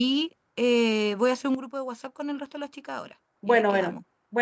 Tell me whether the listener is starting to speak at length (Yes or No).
Yes